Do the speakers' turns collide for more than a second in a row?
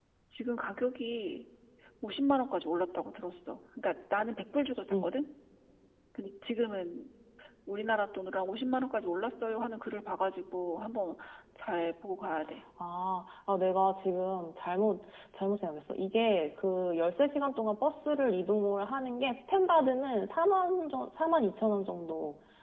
No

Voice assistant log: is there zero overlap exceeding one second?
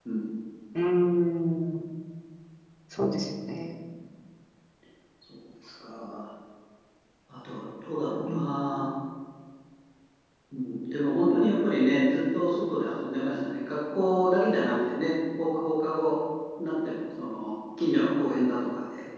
Yes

